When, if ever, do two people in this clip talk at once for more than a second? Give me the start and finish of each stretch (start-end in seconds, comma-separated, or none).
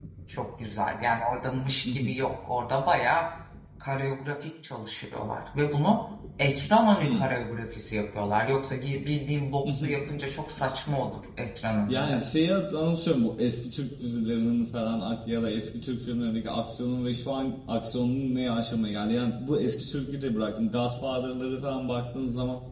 none